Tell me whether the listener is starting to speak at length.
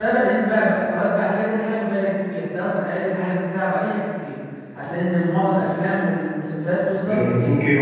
Yes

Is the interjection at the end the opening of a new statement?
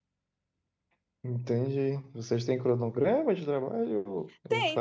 Yes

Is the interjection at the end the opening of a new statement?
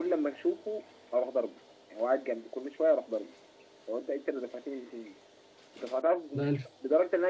No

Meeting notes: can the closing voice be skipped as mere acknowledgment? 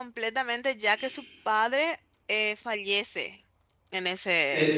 No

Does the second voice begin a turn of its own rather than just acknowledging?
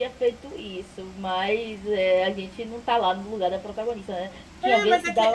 Yes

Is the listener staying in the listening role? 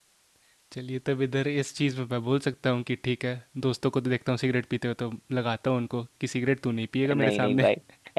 No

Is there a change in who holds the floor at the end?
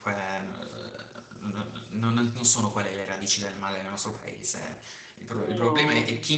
No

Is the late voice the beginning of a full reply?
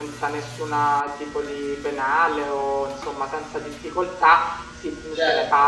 No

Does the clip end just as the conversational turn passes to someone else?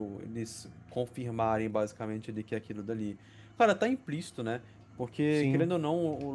No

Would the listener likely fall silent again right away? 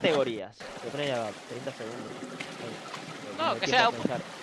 No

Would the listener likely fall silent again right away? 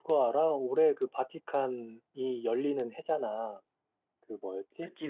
Yes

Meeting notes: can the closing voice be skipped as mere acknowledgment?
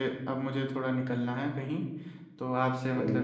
Yes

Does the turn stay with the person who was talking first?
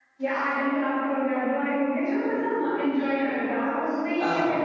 Yes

